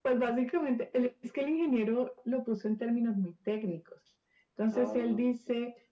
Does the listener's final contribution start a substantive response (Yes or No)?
No